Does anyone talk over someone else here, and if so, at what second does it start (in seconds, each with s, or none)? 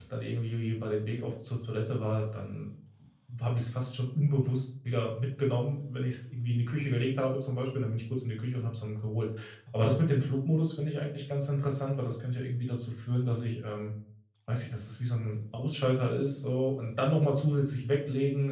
none